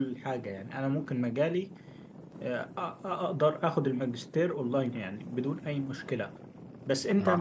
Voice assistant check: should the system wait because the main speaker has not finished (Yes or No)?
Yes